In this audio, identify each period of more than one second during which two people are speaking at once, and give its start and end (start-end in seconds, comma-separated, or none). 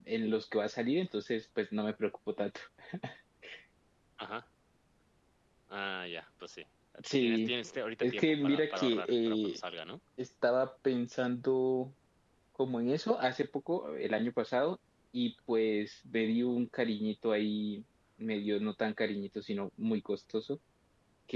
8.0-9.6